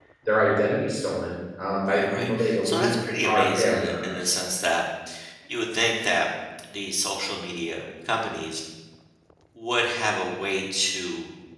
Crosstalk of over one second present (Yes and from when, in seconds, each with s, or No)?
Yes, from 1.9 s